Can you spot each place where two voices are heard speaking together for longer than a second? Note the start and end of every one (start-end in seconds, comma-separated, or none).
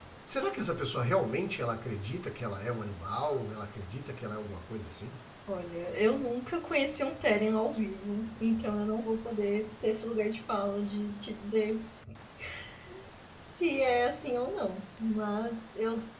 none